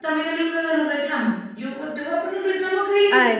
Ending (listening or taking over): taking over